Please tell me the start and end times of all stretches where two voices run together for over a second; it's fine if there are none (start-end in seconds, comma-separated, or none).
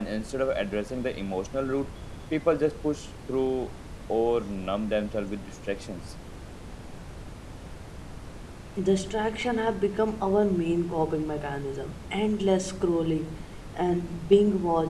none